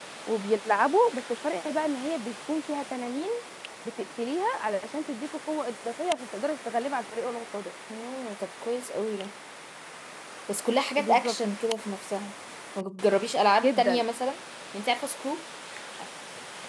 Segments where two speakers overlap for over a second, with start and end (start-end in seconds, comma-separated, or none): none